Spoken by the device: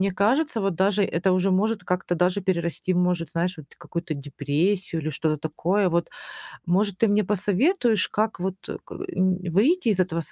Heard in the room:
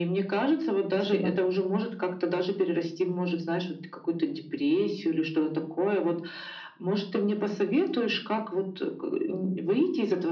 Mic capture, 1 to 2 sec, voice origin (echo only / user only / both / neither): both